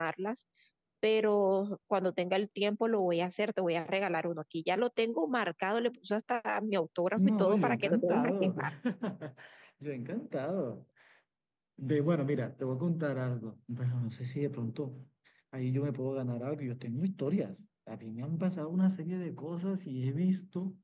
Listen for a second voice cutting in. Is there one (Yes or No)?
Yes